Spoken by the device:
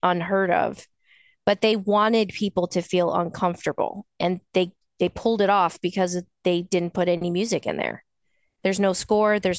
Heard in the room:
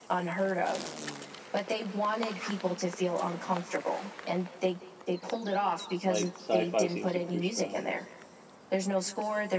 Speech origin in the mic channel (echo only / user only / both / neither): both